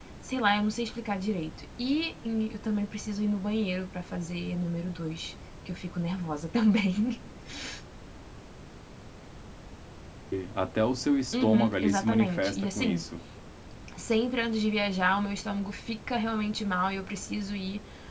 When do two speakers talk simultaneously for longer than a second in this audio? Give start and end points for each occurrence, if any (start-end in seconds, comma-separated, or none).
11.3-13.0